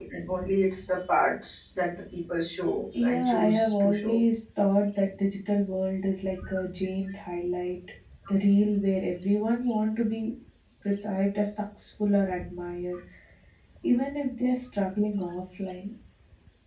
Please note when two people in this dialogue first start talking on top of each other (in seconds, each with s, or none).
2.9 s